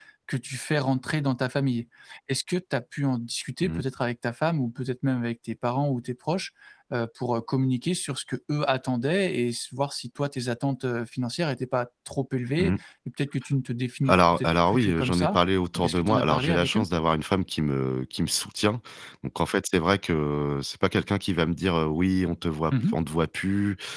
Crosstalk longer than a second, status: present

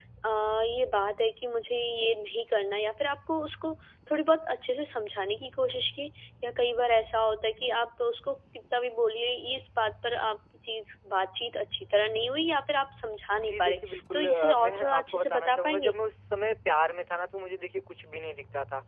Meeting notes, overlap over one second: present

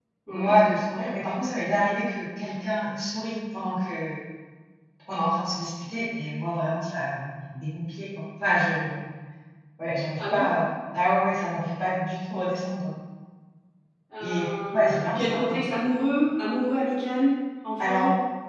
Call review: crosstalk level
present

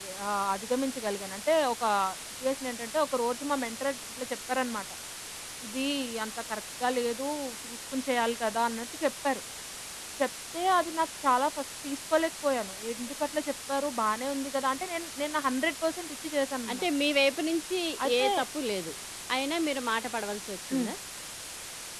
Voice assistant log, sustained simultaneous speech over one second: none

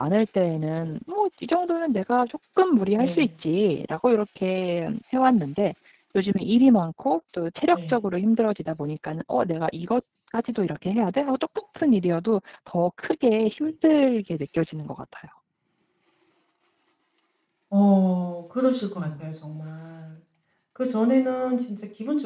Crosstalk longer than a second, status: none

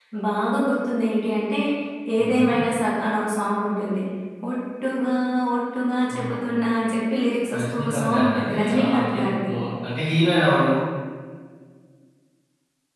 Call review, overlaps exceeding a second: present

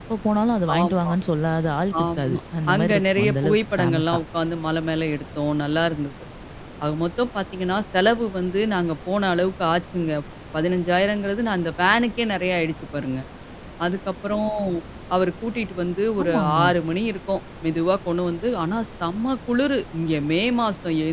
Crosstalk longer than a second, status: present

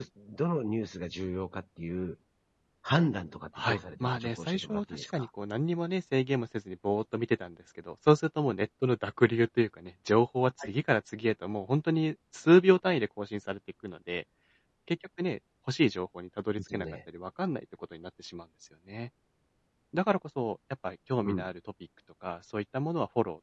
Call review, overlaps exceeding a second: present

